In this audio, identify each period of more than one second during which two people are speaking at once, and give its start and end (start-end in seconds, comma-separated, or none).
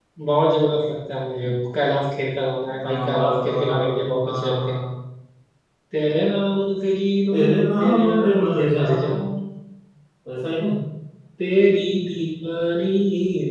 2.8-4.7, 7.8-9.3